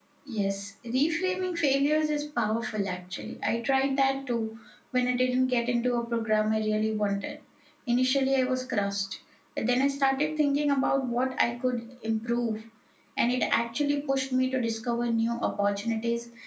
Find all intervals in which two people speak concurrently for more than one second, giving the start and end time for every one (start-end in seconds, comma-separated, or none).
none